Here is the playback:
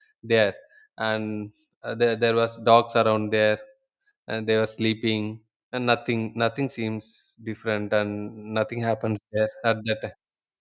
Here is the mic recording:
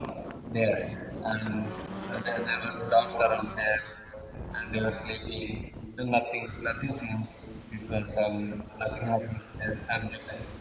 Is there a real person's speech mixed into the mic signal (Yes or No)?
No